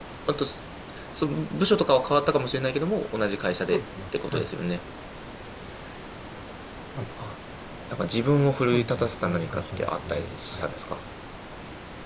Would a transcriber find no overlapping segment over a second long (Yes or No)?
No